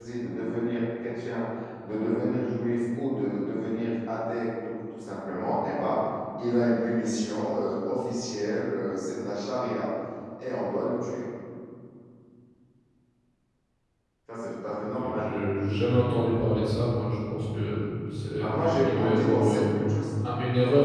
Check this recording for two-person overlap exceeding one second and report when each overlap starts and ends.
18.4-19.6

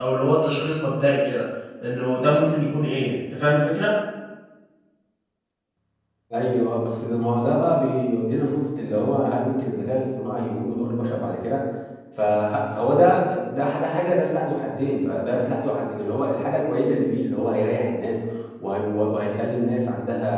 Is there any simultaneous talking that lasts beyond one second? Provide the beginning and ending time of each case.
none

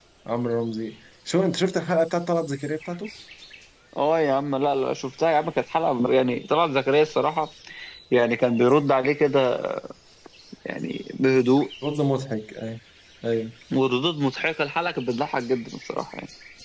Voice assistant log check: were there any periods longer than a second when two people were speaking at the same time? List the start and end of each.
none

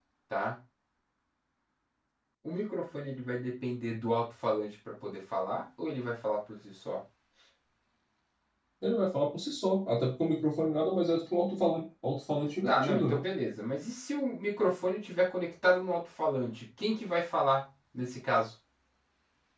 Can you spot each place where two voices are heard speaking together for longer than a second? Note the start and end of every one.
none

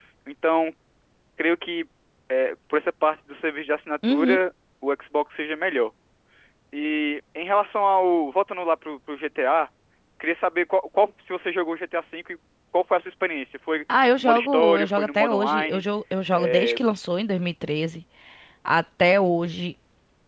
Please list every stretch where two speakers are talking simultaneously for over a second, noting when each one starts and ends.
14.2-15.8

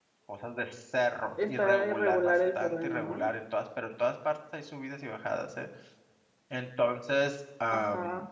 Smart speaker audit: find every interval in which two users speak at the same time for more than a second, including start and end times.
1.4-3.2

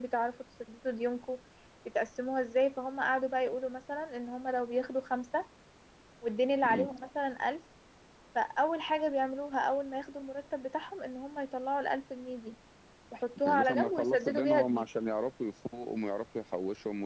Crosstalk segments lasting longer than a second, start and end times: 13.5-14.9

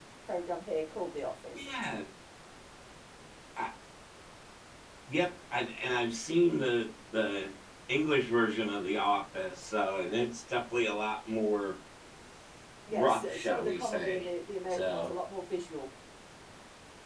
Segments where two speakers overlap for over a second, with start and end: 12.9-14.3

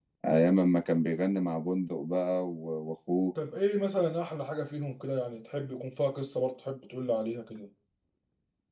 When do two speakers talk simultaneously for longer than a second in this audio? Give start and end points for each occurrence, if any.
none

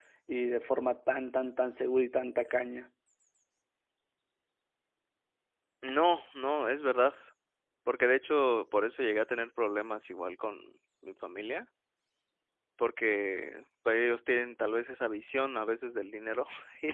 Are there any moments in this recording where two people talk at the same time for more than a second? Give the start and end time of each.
none

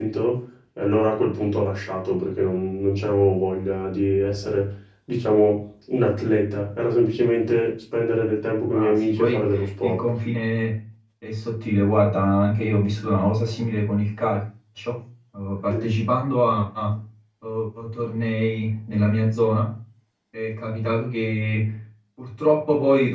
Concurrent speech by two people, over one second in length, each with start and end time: 8.8-10.0

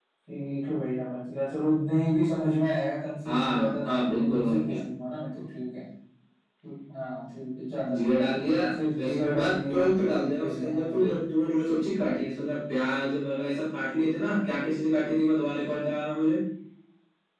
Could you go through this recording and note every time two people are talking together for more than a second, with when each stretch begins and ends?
3.2-4.8, 7.9-11.2

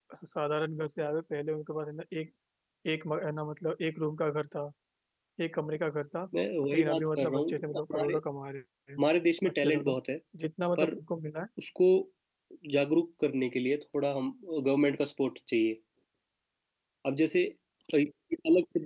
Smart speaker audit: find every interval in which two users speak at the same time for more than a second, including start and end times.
6.7-8.1

